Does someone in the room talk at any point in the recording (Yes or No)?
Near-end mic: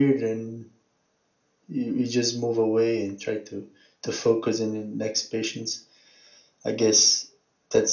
No